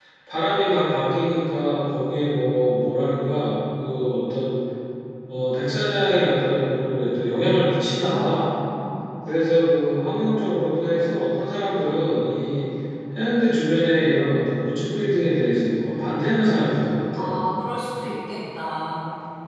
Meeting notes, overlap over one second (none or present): none